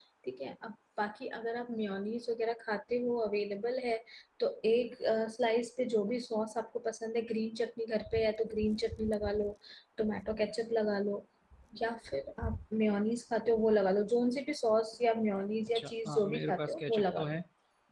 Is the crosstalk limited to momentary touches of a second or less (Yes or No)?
No